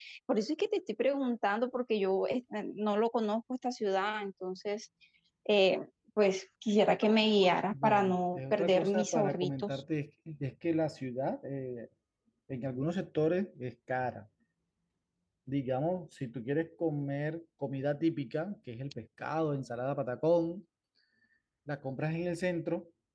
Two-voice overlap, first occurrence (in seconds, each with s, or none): 7.7 s